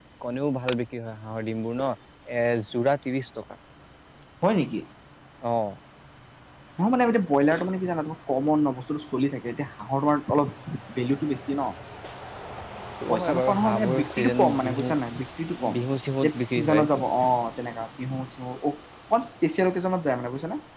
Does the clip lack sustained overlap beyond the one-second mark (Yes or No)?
No